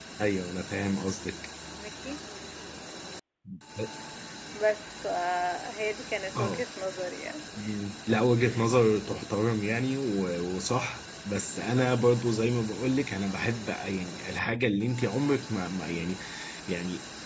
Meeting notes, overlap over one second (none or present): none